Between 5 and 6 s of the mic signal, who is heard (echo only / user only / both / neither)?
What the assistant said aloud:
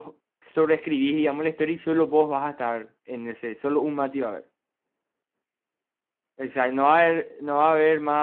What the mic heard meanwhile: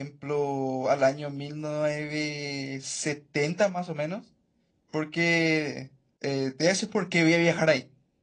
user only